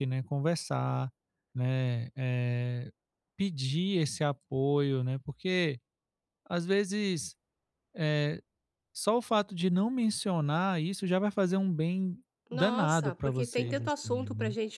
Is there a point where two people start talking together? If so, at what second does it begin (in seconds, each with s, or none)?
12.5 s